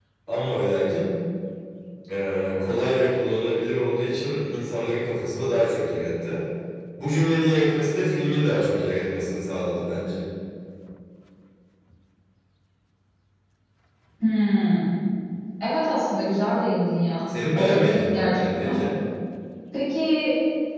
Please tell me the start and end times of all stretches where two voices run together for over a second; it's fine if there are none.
17.5-18.8

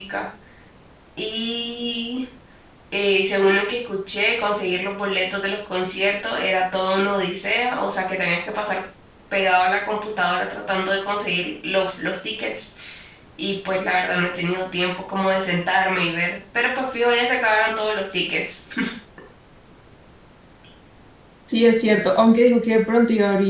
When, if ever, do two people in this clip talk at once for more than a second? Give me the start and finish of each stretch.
none

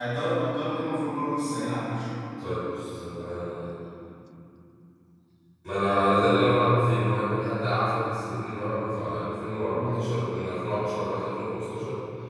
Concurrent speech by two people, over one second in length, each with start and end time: none

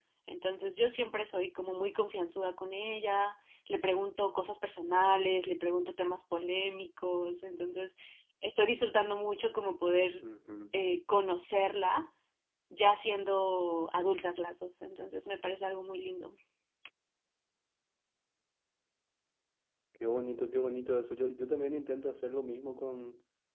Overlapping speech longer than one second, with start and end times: none

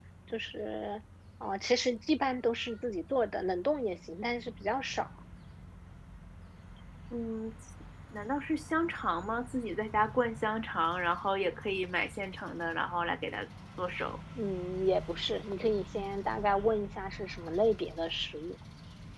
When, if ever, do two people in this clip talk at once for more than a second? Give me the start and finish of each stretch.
none

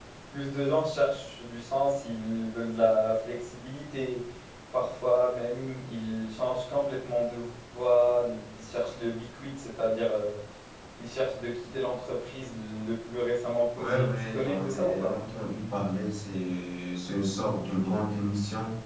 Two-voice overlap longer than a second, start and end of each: 13.8-15.1

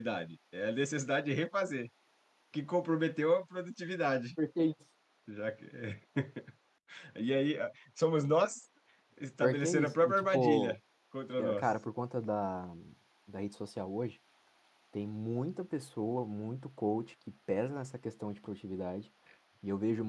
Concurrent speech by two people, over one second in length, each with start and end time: 9.4-10.7

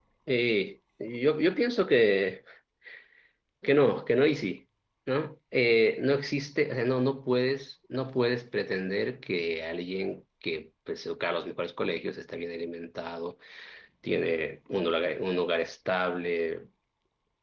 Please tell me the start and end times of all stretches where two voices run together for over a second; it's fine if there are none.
none

